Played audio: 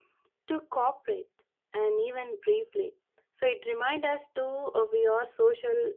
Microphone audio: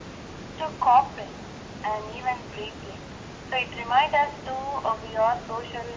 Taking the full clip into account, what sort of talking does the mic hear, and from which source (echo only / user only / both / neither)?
echo only